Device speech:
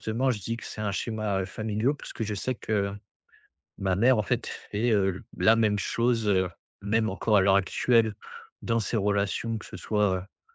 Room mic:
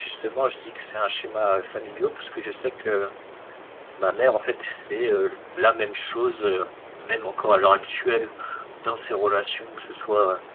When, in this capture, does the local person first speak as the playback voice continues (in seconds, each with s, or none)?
none